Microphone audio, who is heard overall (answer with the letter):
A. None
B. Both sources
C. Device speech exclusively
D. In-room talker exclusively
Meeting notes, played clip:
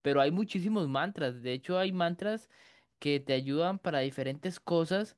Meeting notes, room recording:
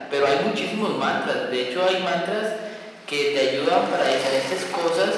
C